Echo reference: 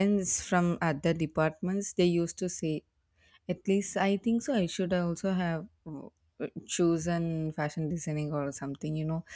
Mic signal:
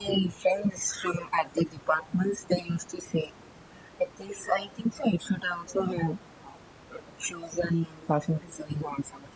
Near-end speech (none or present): none